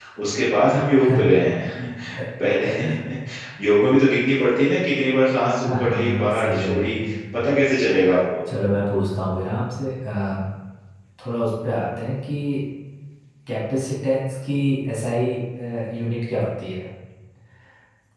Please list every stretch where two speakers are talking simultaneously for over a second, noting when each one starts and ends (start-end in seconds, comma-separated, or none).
5.6-7.0